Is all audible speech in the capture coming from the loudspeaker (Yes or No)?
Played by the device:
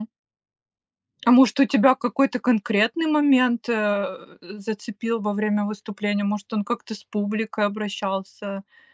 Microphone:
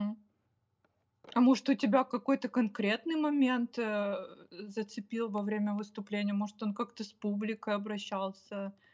Yes